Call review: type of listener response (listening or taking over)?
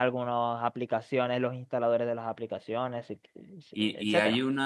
taking over